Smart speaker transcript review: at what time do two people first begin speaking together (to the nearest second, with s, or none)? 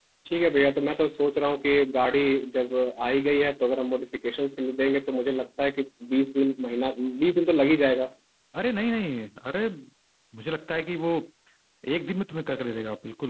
none